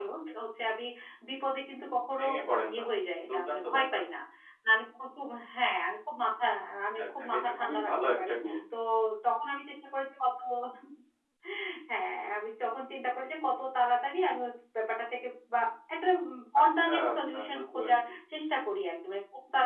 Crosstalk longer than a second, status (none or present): present